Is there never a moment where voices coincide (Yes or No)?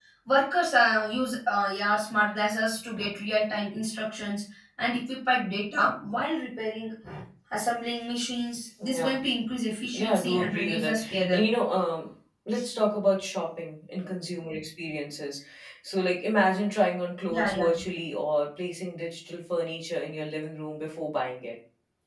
No